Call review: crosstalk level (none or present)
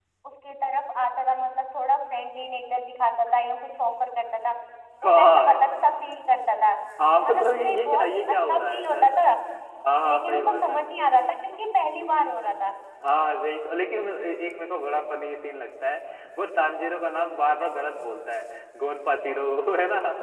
present